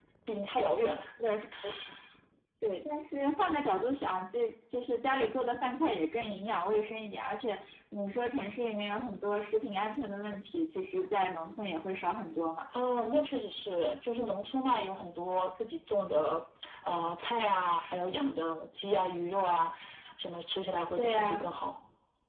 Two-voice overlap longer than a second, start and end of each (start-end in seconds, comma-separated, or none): none